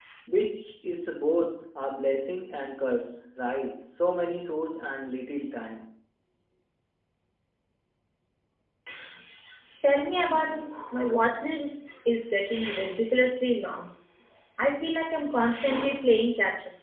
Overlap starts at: none

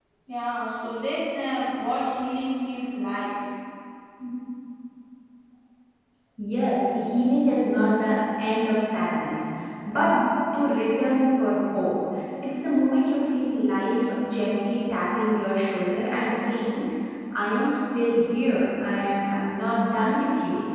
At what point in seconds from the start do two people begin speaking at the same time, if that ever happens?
none

